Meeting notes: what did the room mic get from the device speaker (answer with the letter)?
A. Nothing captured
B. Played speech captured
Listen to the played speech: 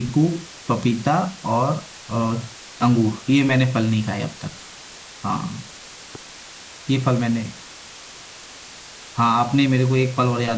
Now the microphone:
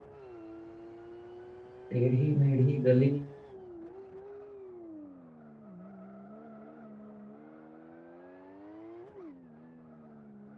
A